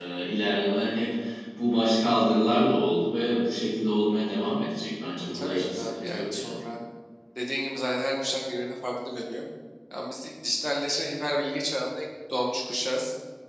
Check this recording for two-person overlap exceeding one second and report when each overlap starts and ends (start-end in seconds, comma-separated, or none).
5.3-6.6